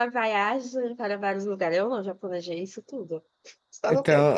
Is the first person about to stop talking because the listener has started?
Yes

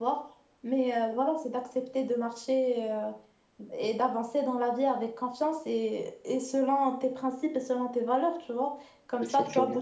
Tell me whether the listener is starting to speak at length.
No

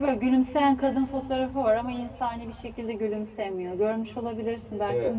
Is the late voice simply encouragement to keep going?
No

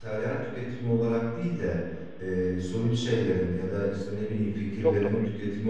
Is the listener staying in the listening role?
Yes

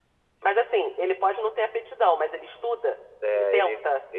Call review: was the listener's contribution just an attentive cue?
No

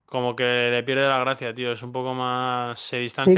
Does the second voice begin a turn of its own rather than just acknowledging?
Yes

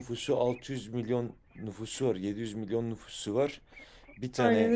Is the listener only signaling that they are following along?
Yes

